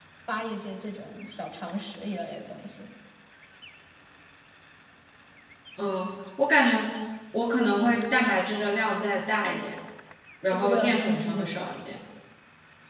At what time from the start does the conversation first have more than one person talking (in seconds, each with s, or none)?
10.5 s